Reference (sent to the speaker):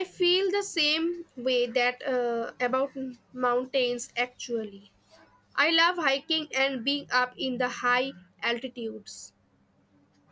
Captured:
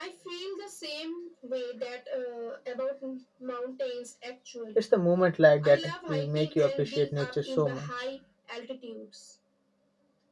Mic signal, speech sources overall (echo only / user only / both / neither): both